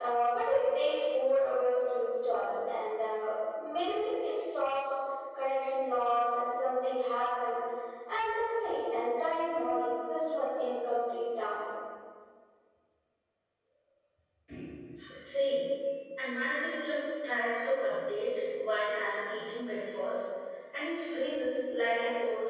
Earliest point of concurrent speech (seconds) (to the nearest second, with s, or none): none